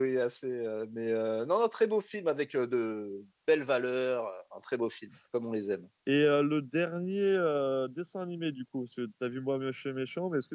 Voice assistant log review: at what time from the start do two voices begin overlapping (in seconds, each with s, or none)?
none